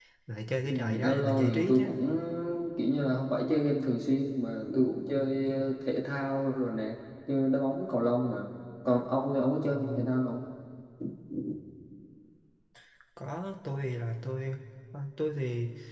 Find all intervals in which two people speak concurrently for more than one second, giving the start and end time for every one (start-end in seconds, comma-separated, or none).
0.6-1.8